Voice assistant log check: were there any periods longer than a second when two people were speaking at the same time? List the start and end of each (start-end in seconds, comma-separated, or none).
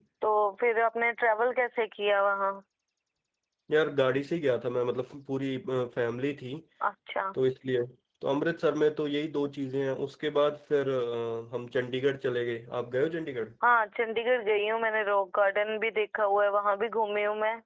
none